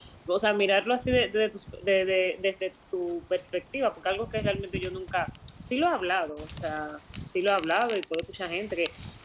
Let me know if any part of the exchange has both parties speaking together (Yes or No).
No